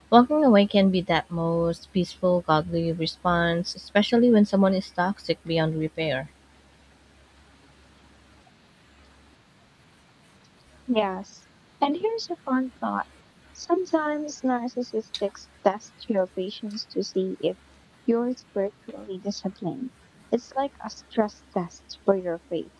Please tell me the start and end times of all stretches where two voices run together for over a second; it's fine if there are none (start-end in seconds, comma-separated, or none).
none